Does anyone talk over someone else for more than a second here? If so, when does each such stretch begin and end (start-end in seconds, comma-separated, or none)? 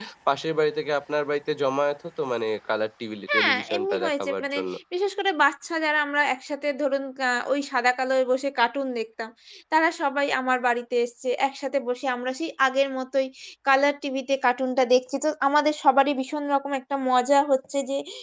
3.3-4.6